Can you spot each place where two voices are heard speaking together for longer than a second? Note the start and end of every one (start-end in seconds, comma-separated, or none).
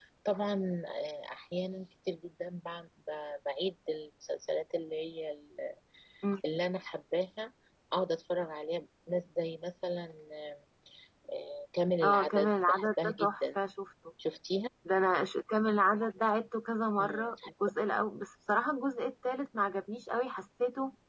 12.0-13.4